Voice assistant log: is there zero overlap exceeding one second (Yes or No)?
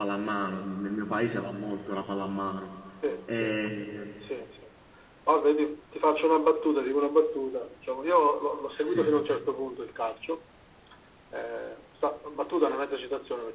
Yes